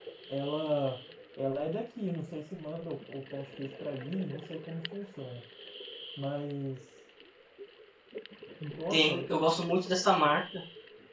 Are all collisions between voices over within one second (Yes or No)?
Yes